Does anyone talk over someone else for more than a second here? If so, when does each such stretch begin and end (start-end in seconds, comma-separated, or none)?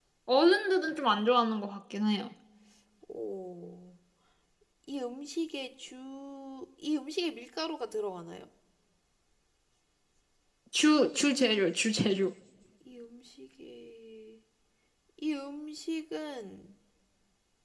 none